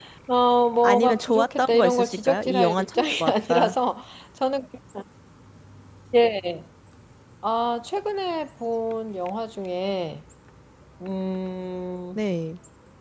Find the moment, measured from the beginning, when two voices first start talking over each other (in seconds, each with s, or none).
0.8 s